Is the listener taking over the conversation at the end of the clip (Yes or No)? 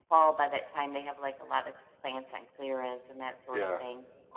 Yes